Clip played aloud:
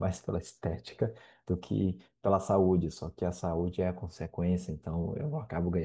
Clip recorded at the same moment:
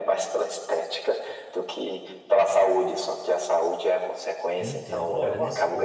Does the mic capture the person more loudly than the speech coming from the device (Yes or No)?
No